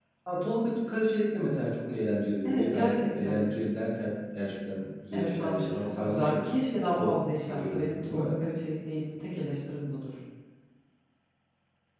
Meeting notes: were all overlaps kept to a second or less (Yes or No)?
No